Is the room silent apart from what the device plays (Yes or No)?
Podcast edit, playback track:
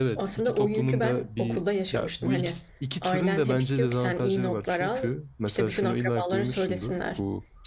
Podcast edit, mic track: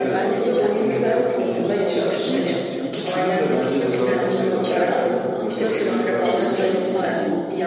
No